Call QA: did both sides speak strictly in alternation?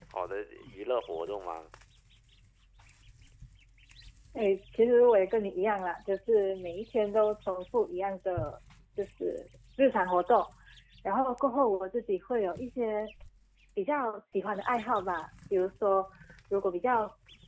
Yes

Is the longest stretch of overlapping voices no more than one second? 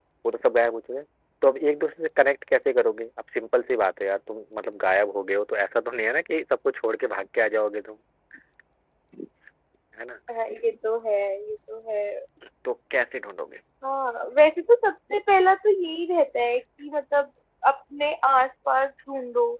Yes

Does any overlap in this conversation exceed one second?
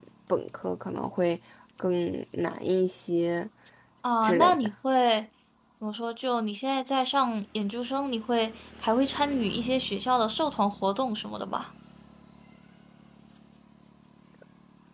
No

